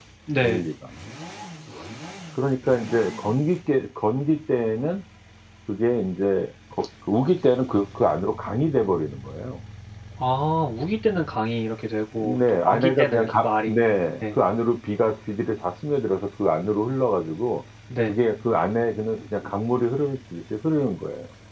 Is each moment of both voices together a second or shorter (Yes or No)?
No